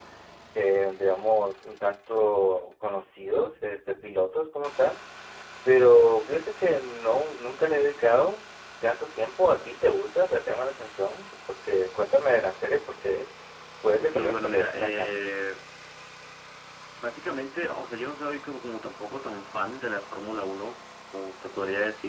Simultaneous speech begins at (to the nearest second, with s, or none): 14 s